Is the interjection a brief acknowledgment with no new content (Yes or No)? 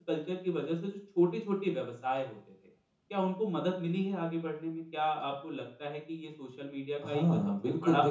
No